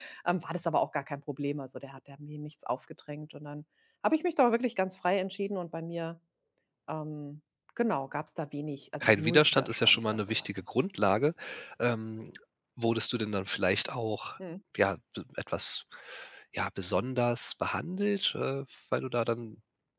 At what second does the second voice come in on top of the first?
9.0 s

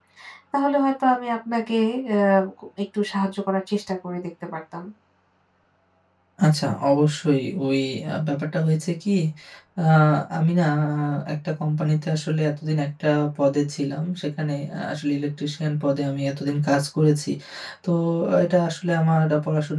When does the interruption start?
none

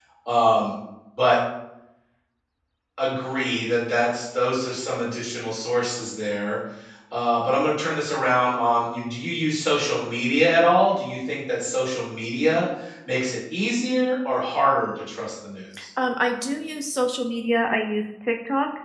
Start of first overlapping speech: none

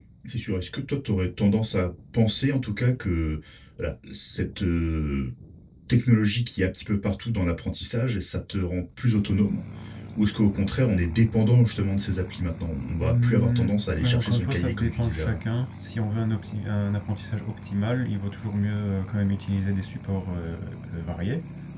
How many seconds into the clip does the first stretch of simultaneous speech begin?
13.0 s

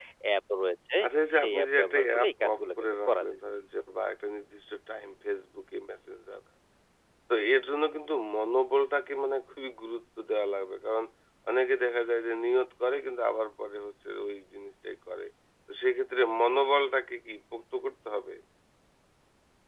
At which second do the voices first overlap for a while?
1.4 s

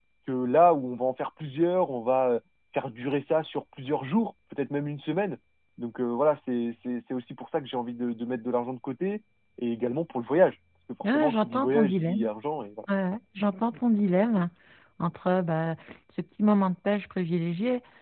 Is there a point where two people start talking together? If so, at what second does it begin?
11.0 s

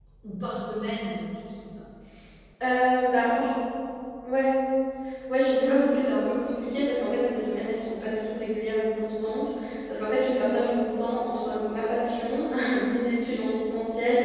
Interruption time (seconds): none

